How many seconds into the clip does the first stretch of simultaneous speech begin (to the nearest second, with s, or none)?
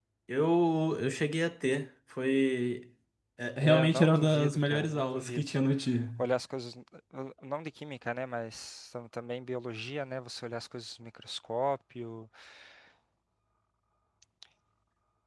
4 s